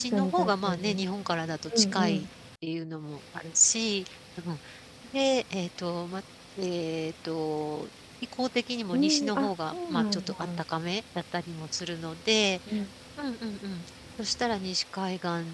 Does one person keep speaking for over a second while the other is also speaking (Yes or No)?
Yes